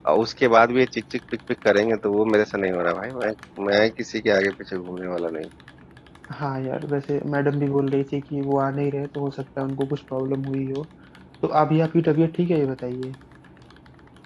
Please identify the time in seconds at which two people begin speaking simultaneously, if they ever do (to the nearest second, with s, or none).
none